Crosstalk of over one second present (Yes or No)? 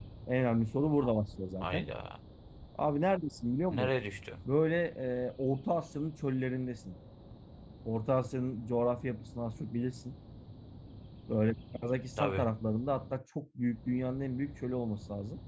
No